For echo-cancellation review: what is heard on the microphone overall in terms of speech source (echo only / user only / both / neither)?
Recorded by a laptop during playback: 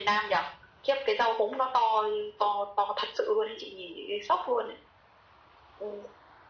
echo only